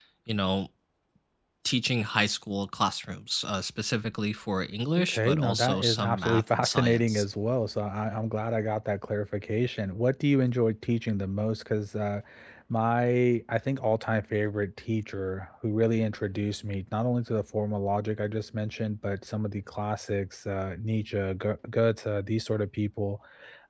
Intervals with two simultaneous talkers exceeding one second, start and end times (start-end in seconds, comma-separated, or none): 5.0-7.2